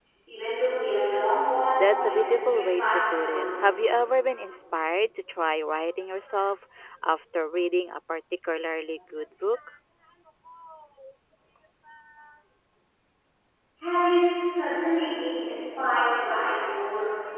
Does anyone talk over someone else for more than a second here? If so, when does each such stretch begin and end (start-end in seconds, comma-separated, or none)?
1.7-3.4